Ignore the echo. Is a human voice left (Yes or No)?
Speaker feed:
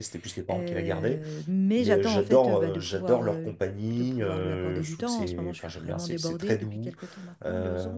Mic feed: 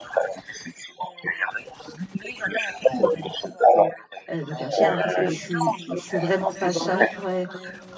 Yes